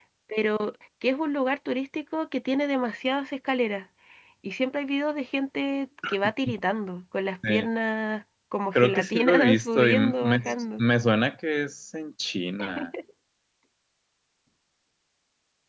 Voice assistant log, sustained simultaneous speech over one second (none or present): present